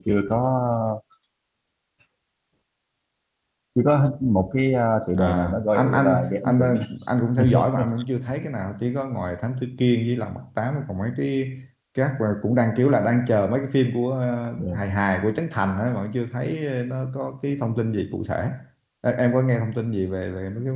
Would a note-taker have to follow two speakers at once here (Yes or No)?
Yes